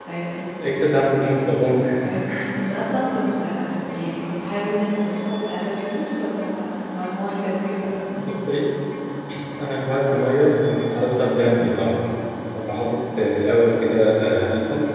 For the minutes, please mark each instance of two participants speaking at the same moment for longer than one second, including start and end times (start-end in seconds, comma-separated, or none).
none